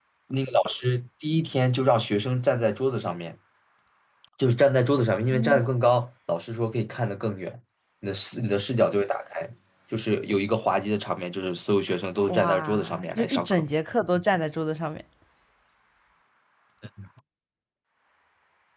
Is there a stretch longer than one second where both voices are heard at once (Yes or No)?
Yes